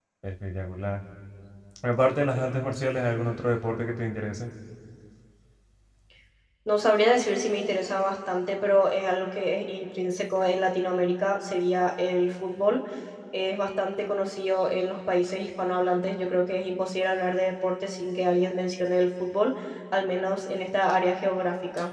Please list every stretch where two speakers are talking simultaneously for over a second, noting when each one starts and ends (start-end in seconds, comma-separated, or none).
none